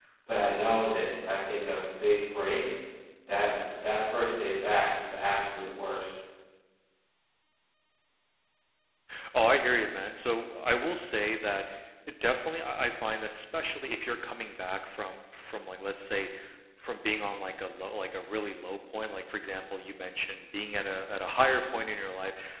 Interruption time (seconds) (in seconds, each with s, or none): none